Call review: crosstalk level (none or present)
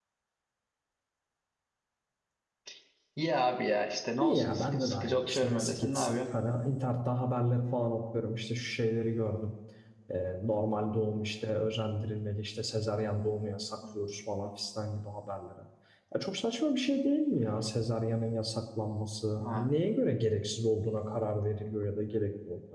present